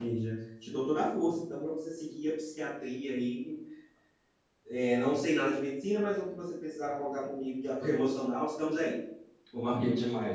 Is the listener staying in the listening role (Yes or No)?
No